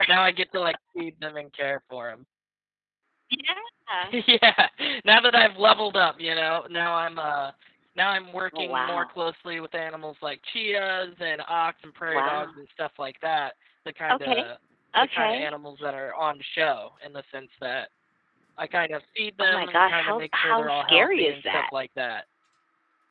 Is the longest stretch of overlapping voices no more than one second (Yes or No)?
No